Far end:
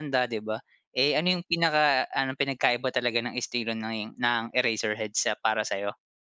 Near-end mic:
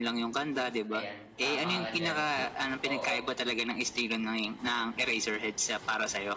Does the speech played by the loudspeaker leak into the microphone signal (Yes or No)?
Yes